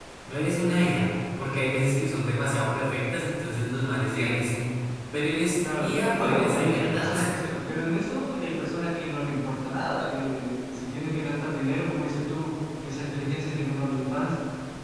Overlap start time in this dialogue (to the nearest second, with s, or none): 6 s